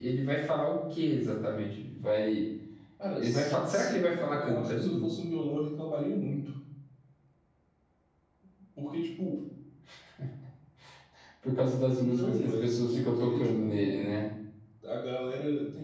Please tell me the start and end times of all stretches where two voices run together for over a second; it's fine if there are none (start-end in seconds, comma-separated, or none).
3.2-5.1, 11.9-14.1